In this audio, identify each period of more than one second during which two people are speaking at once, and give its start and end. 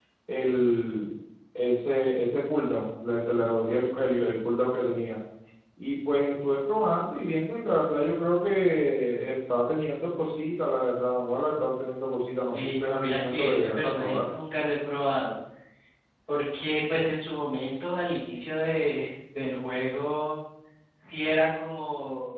12.5-14.2

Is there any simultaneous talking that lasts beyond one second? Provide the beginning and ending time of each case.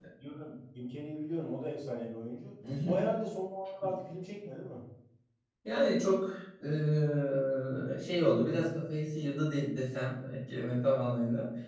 none

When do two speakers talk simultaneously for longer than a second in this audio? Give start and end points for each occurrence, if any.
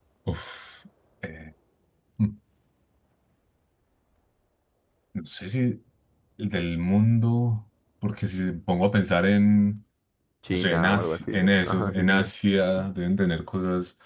10.5-12.2

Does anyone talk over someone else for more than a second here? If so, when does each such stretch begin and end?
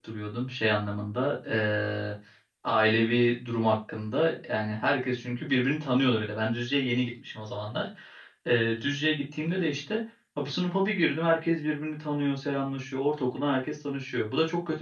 none

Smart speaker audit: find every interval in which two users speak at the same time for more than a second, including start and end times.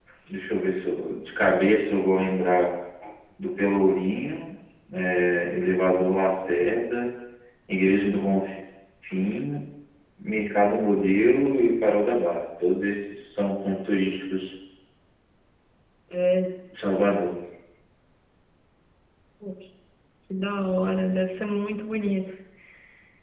none

